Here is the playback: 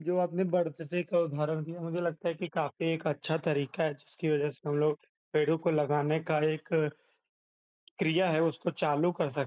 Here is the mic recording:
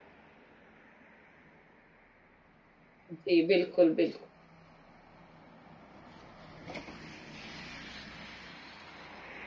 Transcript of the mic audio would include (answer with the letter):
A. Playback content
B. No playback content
B